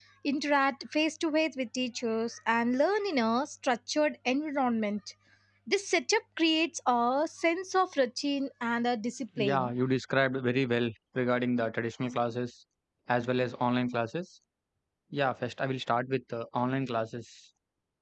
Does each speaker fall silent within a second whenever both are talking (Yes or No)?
Yes